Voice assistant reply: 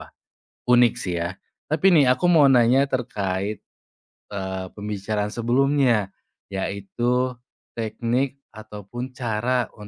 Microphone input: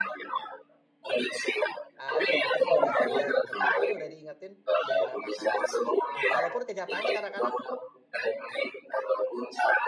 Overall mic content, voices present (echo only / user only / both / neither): both